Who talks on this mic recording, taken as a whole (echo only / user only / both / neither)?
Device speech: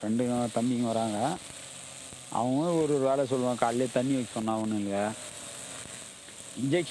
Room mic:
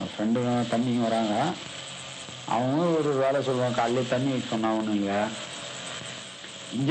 echo only